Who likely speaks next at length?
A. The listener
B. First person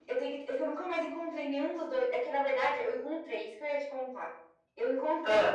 B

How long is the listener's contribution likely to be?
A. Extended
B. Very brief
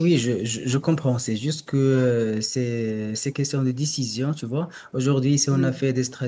B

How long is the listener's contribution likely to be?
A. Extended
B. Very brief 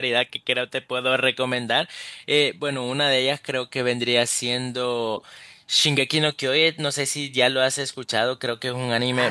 A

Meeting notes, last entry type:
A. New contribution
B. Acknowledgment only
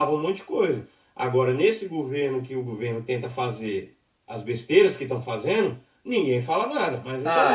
A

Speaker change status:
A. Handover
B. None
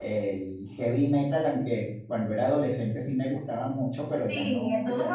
A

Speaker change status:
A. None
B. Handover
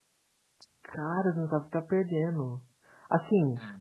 A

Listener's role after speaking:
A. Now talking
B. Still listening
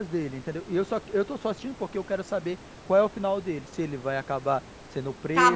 A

